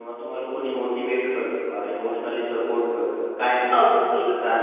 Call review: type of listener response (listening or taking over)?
taking over